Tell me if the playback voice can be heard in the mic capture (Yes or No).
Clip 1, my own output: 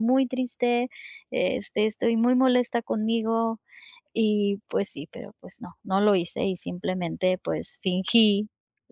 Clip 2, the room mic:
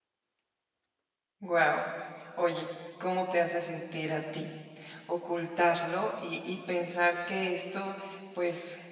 No